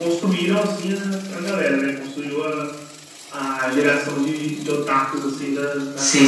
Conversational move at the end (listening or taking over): taking over